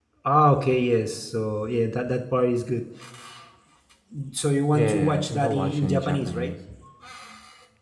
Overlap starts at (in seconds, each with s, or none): 4.7 s